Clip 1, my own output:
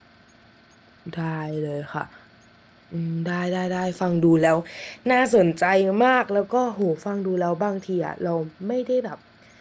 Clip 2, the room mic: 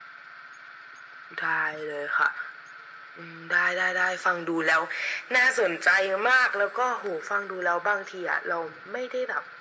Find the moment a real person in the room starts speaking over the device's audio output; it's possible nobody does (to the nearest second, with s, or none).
none